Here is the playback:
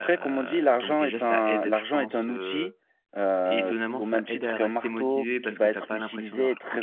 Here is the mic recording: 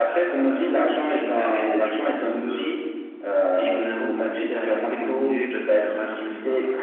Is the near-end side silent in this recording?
Yes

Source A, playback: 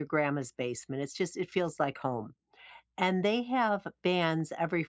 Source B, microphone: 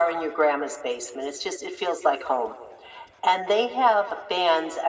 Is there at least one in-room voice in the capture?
No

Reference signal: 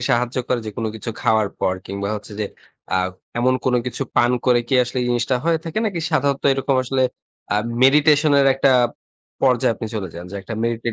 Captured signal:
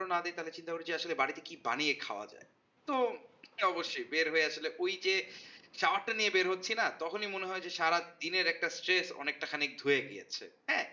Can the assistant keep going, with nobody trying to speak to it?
No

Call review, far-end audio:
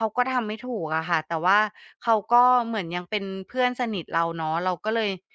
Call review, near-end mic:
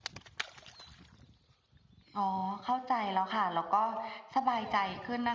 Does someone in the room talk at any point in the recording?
Yes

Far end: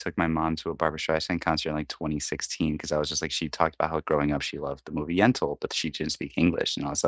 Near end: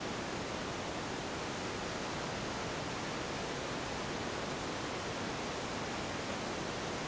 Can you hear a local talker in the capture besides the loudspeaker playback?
No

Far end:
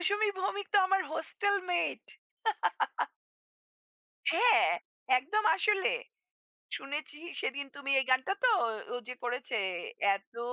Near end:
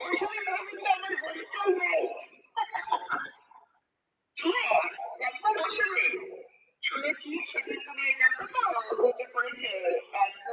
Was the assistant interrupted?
No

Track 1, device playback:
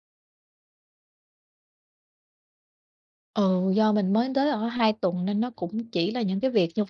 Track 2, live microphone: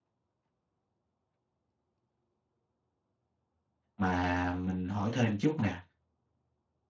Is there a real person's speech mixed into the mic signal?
Yes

